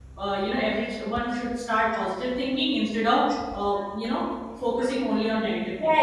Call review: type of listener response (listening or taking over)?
taking over